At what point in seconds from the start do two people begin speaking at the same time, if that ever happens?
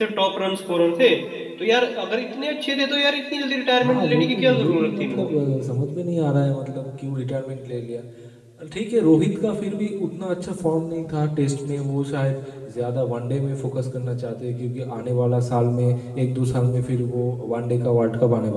3.8 s

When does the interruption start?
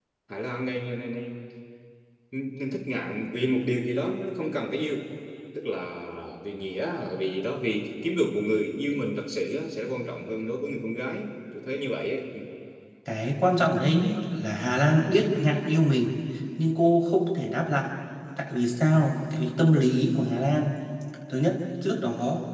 none

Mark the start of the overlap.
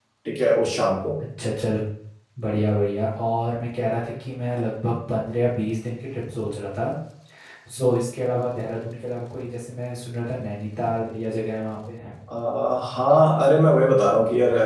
none

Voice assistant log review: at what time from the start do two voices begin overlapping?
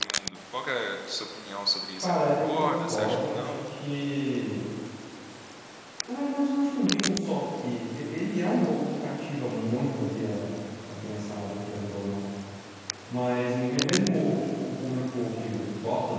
2.0 s

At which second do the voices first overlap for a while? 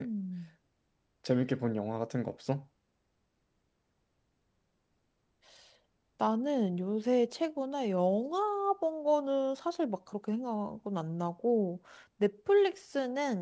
none

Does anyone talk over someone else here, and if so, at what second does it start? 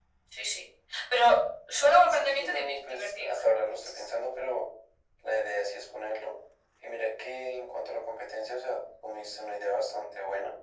2.1 s

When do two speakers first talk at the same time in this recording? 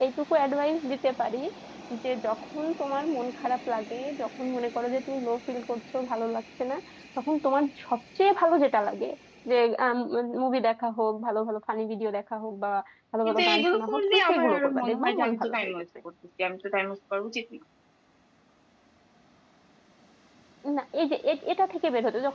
13.2 s

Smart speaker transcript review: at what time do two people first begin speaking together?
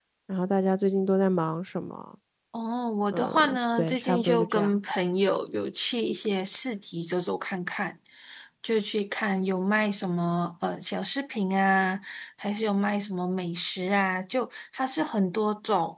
3.1 s

